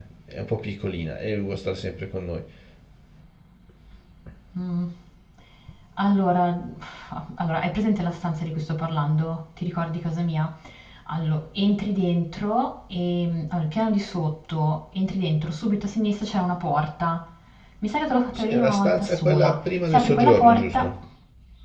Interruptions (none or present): present